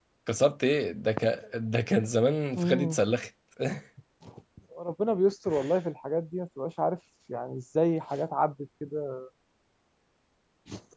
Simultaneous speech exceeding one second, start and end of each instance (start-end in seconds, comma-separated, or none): none